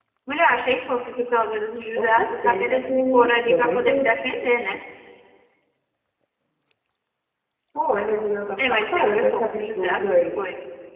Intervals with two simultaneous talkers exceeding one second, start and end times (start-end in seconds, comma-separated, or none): 2.0-4.1, 8.6-10.4